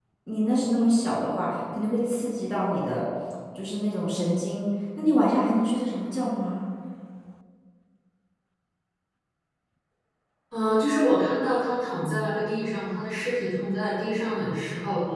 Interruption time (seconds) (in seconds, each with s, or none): none